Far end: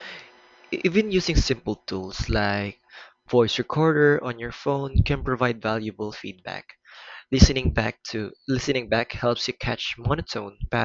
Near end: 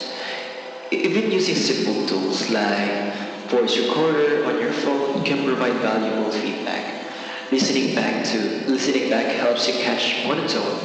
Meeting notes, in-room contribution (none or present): none